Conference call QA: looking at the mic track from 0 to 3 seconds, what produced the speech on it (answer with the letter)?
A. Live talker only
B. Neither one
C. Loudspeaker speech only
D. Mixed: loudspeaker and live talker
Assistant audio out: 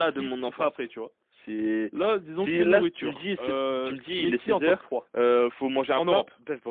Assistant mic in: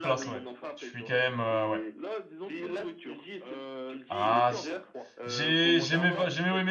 D